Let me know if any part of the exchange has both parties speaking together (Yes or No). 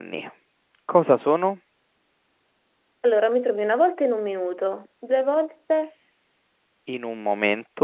No